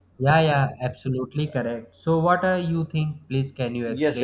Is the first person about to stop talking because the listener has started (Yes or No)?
Yes